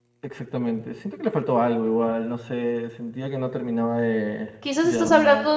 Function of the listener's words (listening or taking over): taking over